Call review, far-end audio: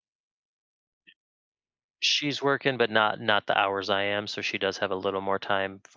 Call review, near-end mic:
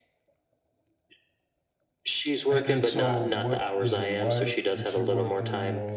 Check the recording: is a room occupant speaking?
Yes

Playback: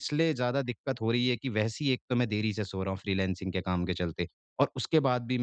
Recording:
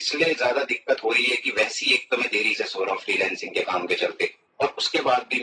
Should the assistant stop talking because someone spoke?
No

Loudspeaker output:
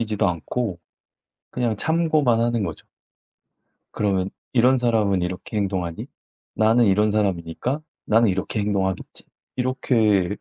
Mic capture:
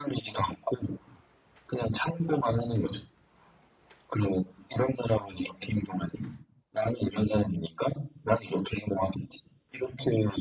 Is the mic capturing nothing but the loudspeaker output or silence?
Yes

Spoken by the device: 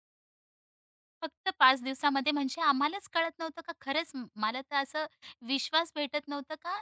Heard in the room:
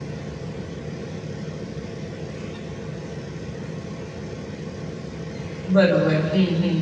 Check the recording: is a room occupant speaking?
Yes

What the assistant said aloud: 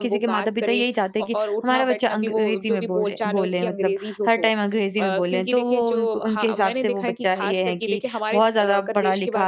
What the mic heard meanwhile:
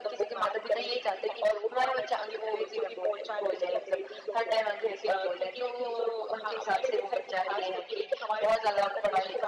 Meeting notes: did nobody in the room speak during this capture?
Yes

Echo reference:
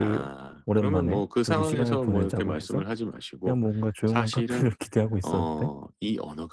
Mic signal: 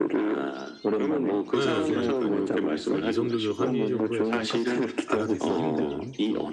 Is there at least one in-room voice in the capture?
Yes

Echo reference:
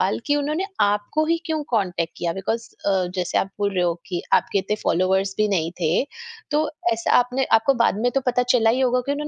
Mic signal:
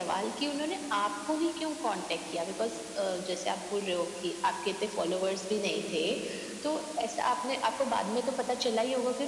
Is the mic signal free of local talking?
Yes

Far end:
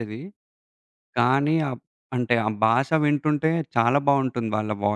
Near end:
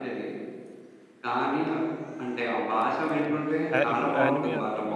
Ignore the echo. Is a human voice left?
Yes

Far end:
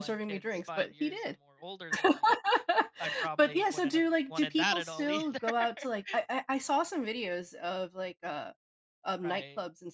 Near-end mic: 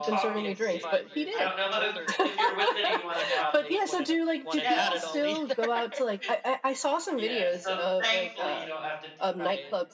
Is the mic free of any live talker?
No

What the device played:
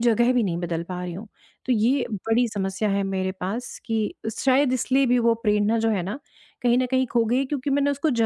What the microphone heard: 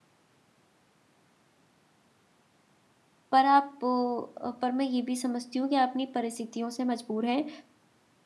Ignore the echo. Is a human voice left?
Yes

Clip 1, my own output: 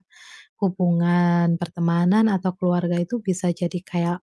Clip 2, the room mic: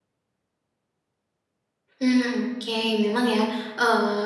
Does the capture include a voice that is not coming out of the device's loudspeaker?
Yes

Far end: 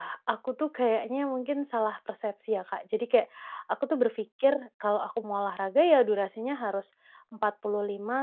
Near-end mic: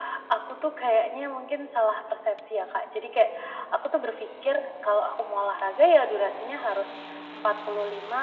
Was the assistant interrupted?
No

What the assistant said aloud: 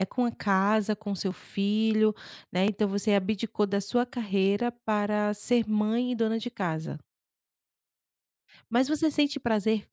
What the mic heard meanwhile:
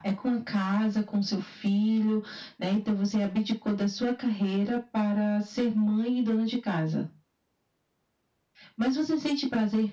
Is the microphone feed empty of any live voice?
Yes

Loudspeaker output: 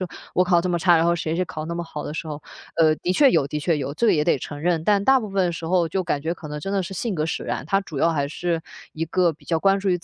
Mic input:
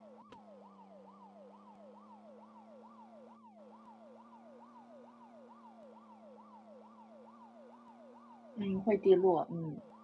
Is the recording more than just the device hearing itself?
Yes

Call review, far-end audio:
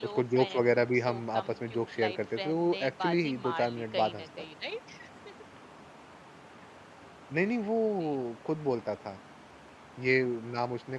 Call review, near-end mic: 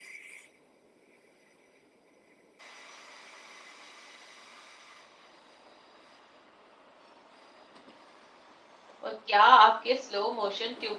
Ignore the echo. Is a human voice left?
Yes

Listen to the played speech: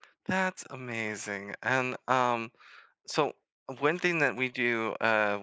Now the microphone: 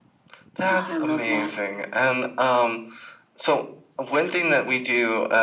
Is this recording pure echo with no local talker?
No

